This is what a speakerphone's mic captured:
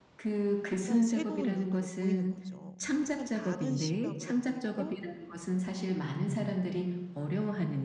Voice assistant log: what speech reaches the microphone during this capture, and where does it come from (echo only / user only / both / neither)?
both